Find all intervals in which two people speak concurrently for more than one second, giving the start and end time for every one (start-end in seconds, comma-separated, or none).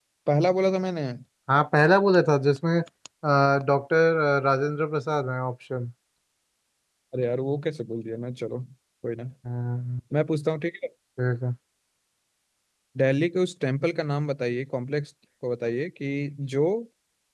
none